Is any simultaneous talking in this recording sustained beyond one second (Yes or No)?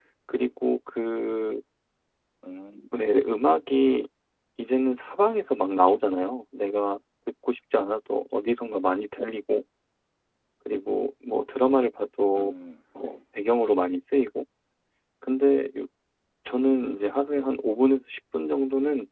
No